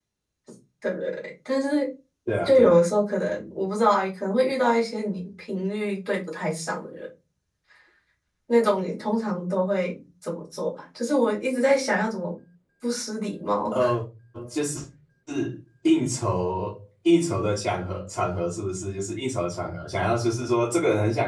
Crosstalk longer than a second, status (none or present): none